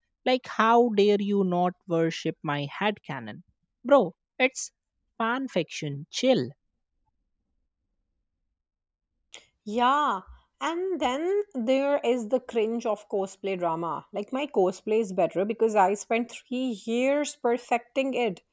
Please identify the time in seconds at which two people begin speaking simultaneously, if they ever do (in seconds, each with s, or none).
none